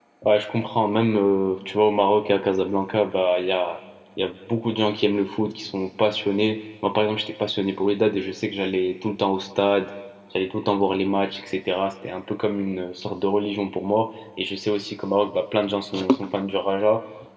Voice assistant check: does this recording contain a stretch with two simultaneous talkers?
No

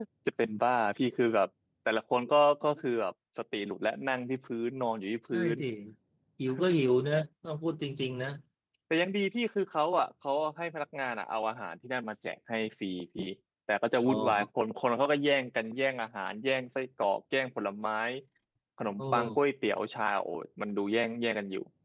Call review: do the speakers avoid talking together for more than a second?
Yes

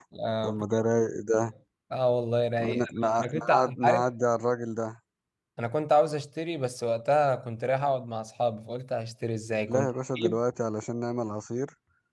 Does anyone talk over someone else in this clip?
Yes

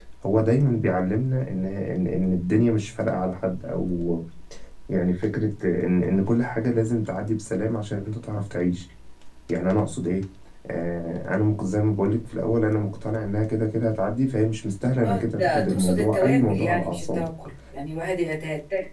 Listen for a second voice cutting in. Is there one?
Yes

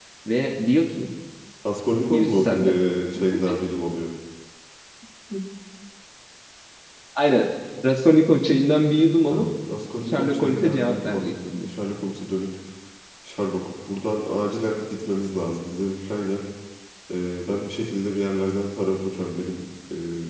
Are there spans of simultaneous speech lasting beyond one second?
Yes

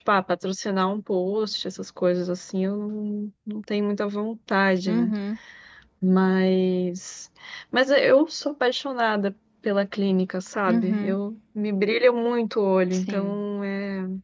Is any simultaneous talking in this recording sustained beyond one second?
No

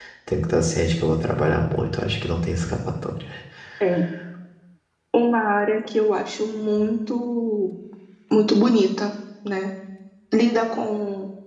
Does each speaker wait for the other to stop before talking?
Yes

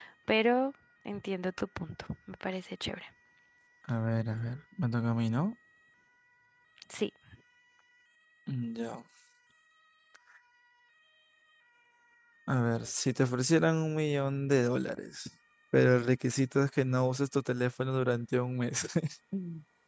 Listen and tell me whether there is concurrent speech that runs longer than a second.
No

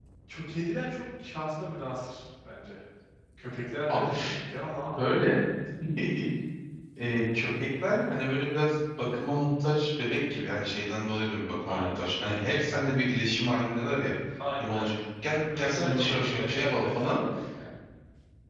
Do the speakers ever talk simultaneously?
Yes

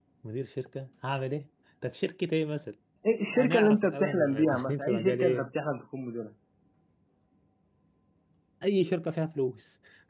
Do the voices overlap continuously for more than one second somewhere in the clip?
Yes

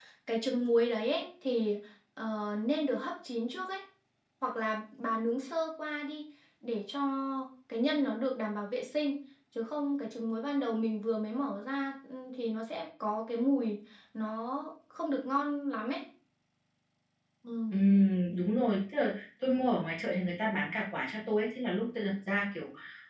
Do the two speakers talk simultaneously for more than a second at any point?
No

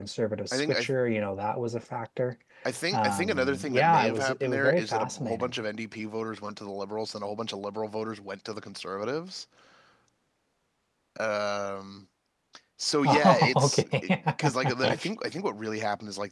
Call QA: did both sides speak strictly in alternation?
No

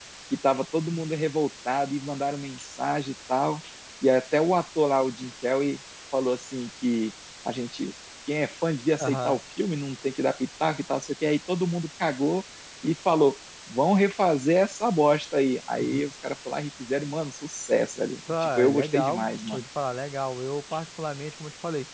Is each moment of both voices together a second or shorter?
No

